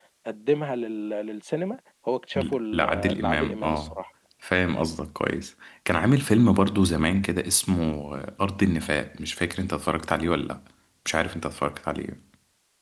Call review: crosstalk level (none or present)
present